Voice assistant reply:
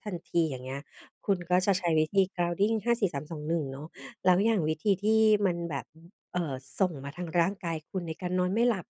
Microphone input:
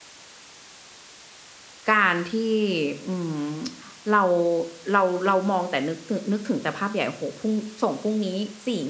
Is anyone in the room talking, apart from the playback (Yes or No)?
Yes